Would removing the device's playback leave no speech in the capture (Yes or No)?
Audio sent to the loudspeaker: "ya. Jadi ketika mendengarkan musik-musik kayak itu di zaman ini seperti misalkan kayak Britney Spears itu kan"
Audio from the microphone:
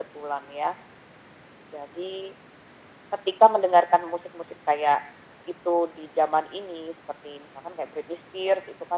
Yes